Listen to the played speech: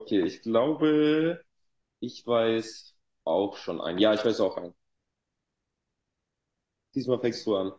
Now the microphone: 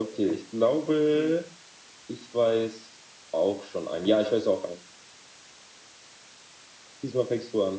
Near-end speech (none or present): present